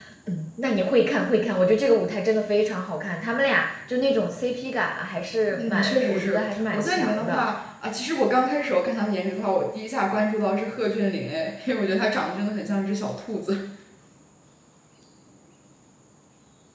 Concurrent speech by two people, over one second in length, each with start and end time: 5.6-7.5

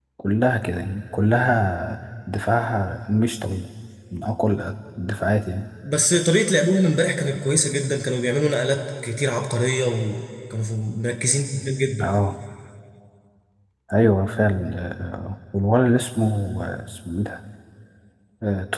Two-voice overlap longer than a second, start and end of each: none

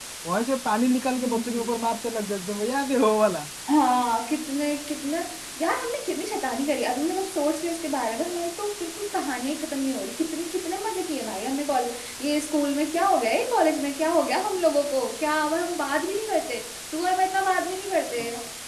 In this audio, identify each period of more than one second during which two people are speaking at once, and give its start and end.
none

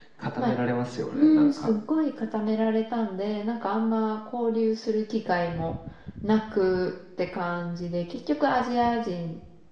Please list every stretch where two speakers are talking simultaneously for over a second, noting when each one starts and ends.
none

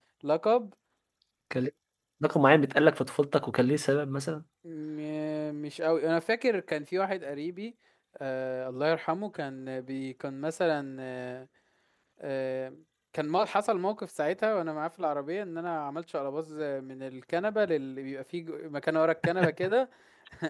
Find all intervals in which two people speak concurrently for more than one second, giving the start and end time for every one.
none

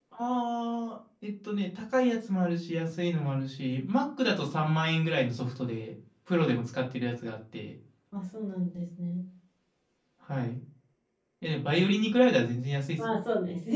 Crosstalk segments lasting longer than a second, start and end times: none

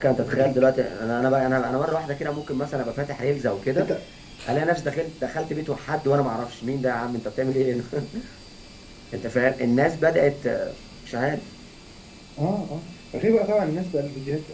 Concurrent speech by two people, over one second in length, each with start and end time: none

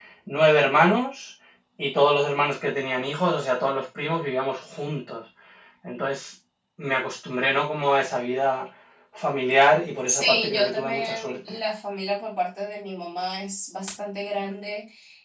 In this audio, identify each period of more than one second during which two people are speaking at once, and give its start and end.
10.1-11.5

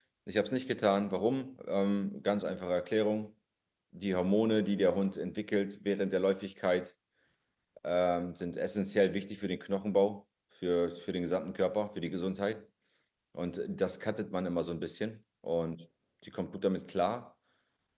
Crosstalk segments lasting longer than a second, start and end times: none

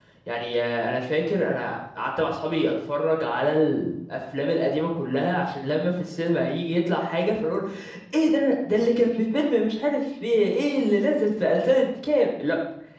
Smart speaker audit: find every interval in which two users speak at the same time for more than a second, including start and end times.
none

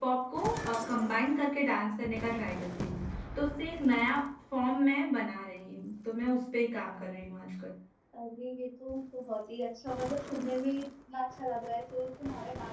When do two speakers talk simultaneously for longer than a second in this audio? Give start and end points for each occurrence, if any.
none

